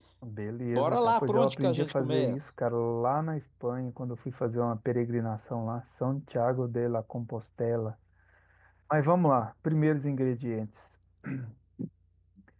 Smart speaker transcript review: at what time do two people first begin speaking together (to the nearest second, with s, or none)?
1 s